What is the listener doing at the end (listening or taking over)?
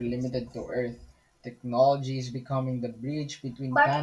taking over